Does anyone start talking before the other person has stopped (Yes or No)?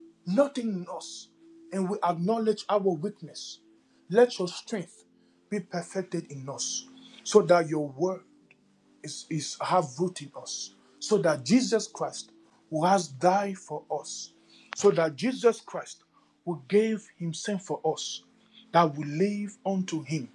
No